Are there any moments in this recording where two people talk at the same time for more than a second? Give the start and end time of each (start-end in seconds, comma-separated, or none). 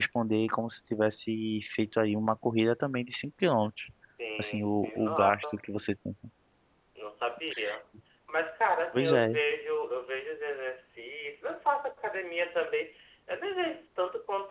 4.4-5.6